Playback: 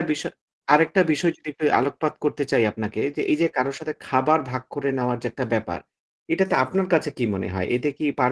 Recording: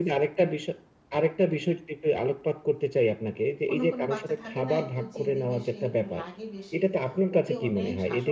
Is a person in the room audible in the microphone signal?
Yes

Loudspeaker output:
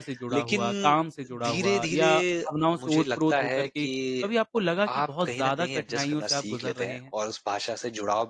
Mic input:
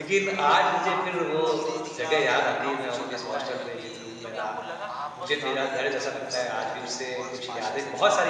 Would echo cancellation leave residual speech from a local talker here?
Yes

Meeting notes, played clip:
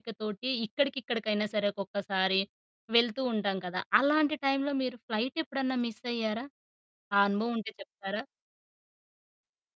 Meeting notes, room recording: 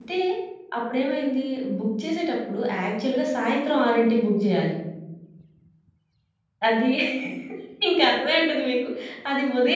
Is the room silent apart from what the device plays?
No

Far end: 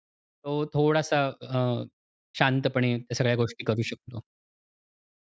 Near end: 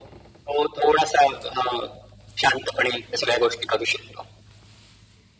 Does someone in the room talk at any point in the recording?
No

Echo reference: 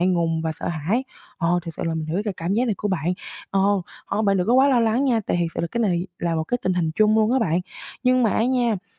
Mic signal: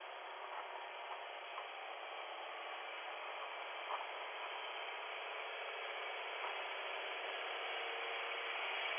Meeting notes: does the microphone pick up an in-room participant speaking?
No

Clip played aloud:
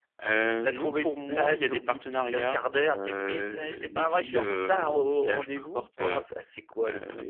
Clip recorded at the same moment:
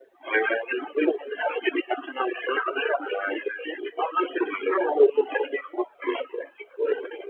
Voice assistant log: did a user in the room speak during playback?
No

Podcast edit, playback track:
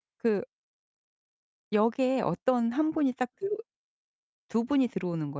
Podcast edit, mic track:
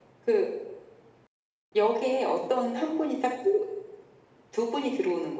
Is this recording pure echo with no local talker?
Yes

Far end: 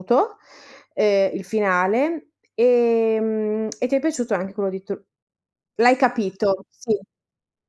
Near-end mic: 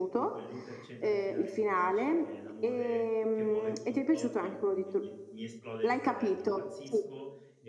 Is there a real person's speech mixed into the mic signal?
Yes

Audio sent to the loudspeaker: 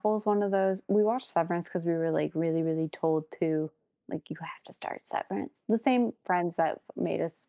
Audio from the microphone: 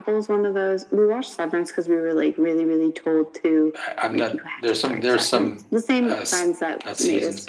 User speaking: Yes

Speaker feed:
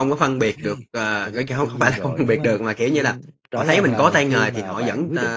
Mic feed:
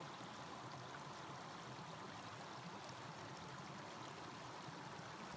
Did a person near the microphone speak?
No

